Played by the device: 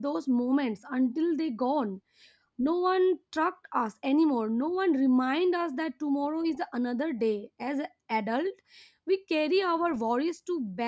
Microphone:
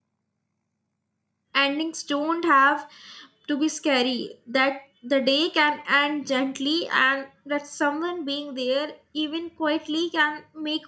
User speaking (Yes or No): Yes